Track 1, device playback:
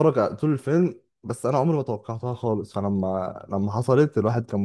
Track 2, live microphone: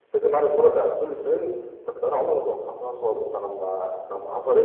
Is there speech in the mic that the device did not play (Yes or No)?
No